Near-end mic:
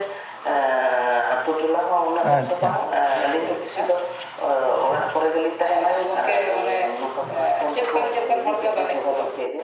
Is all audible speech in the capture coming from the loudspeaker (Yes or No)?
No